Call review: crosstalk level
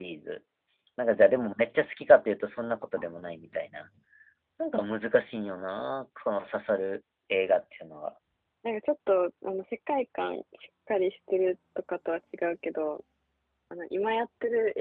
none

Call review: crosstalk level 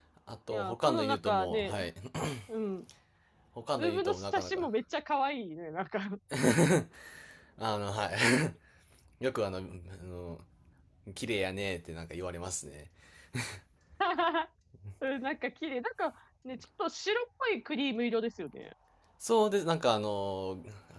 present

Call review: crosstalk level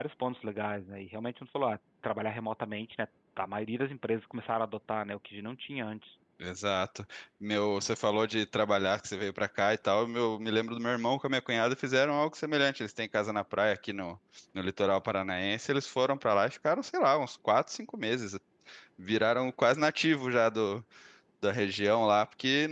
none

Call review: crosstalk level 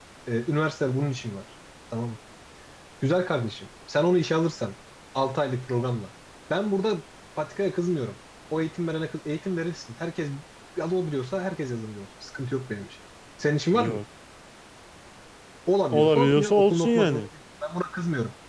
present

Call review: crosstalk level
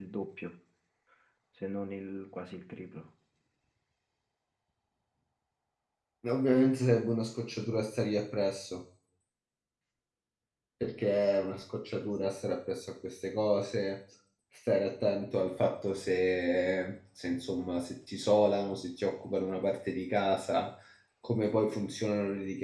none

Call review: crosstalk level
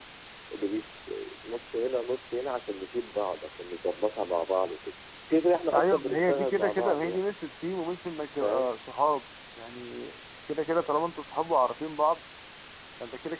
present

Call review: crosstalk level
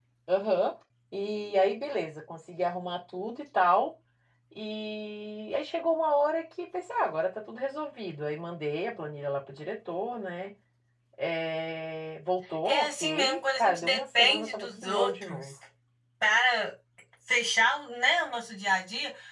present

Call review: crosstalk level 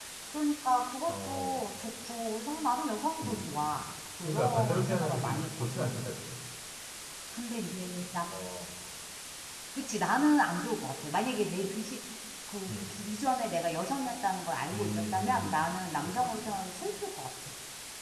present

